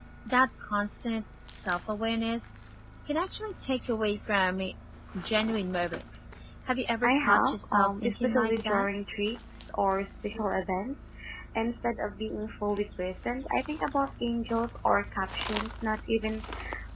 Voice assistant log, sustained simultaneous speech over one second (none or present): present